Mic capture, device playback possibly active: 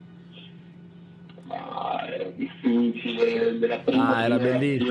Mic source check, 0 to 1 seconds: neither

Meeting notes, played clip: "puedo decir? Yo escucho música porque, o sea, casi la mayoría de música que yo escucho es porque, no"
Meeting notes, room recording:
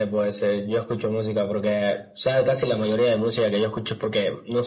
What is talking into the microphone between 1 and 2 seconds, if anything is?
echo only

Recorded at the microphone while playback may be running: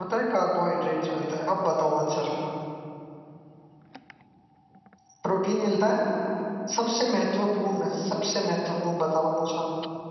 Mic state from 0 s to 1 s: user only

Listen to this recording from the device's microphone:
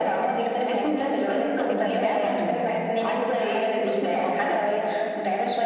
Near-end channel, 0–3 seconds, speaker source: both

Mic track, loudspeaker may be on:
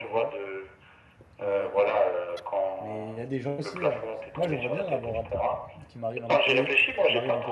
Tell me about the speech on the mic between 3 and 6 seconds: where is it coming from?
both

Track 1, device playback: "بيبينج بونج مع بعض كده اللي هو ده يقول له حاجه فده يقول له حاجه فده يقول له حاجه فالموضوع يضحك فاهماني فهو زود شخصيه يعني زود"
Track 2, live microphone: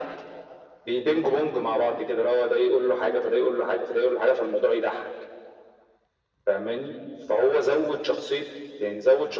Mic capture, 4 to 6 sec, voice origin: echo only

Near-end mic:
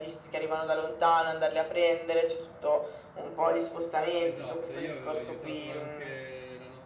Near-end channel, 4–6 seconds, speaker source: both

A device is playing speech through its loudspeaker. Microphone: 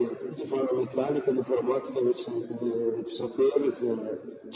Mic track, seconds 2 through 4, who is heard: echo only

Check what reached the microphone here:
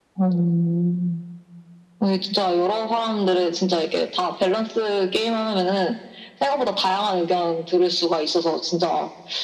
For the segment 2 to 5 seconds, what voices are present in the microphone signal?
echo only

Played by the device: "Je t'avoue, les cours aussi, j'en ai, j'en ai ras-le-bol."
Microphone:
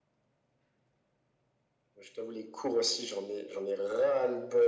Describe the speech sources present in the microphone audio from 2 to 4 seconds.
echo only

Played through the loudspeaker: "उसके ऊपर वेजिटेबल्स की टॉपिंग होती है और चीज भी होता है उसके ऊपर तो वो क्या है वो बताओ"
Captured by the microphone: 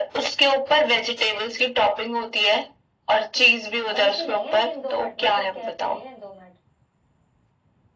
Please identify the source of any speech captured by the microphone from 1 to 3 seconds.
echo only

